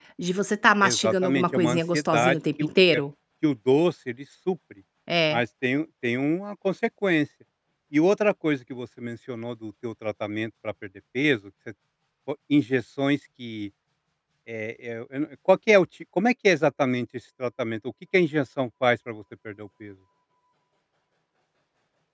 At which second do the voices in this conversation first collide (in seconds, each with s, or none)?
0.8 s